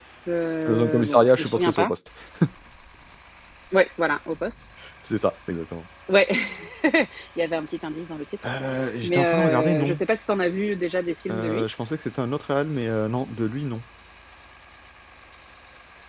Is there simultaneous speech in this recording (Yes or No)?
Yes